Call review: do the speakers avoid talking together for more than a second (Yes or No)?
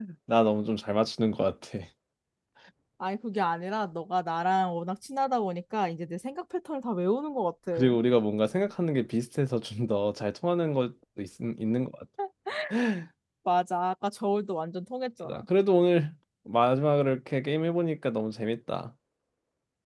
Yes